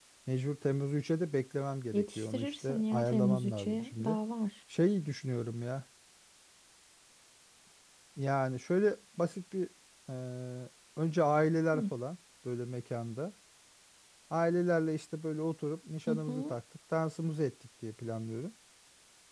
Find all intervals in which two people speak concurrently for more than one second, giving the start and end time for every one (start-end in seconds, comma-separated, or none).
1.9-4.2